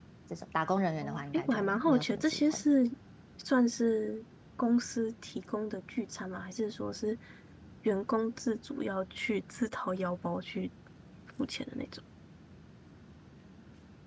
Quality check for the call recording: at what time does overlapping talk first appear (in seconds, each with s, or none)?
1.0 s